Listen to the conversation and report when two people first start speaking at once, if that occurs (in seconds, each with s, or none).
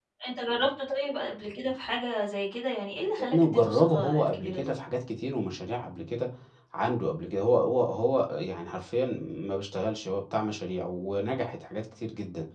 3.2 s